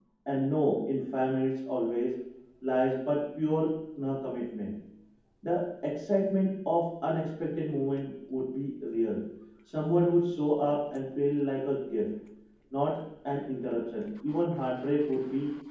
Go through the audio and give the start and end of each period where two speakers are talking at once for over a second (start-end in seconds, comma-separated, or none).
none